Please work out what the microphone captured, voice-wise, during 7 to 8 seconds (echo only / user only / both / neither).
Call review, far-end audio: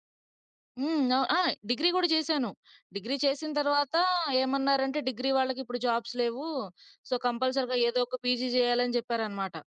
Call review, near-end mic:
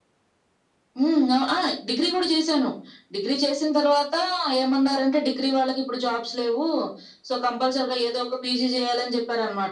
echo only